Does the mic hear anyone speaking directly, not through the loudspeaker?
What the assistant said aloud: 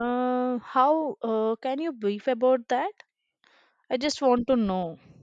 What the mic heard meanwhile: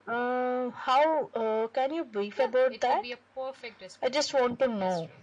Yes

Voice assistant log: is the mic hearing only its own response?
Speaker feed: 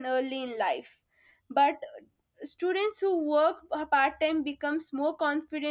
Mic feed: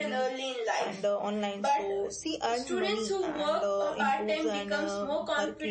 No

